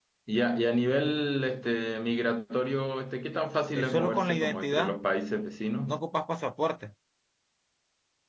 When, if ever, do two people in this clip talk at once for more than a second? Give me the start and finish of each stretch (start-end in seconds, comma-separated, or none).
3.7-5.0